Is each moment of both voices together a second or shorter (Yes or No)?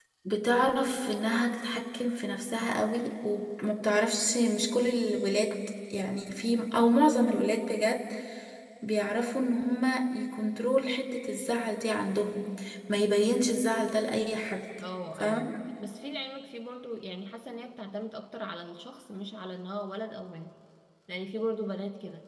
Yes